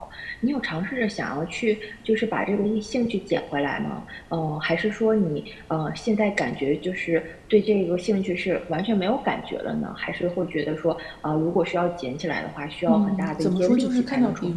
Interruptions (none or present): present